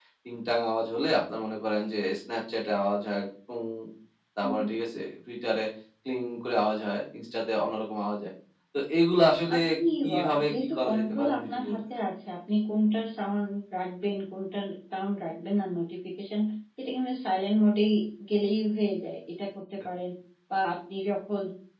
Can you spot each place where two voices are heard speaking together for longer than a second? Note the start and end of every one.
10.0-11.8

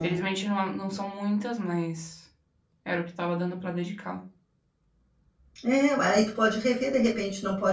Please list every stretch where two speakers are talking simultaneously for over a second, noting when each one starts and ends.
none

